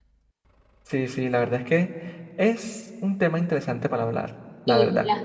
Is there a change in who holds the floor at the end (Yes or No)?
Yes